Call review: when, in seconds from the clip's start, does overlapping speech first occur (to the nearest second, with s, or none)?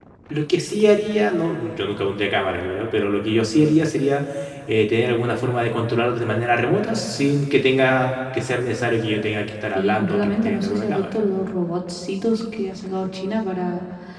10 s